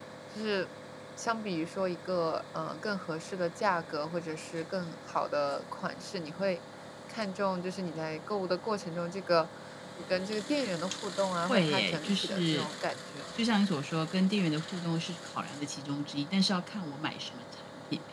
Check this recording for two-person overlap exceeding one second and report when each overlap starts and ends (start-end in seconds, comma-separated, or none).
11.5-12.7